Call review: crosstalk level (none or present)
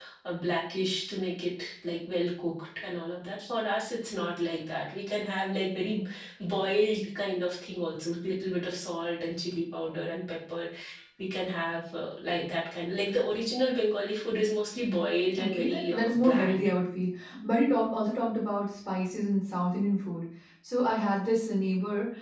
present